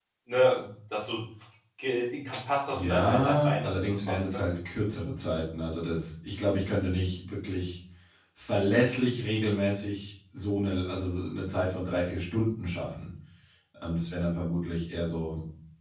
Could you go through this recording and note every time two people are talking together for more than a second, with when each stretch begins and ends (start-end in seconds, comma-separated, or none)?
2.7-4.4